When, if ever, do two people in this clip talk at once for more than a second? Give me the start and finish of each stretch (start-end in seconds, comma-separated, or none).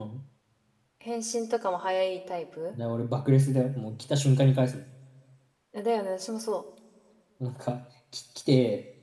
none